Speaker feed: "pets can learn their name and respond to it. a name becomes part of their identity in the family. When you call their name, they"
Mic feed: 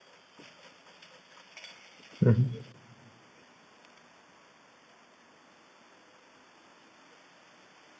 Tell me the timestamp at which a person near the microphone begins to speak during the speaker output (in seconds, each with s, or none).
2.2 s